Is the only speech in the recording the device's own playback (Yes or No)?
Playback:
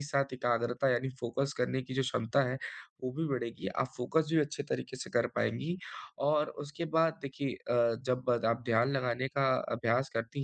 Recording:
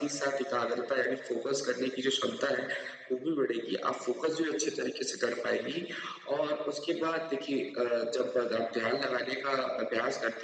Yes